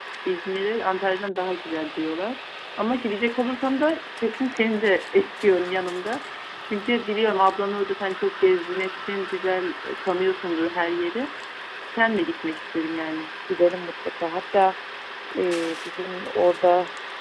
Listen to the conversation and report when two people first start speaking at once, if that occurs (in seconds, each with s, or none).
none